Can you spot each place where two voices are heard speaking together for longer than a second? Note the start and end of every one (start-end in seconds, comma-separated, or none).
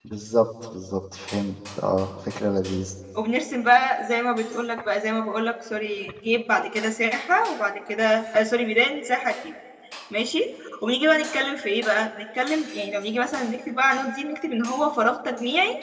none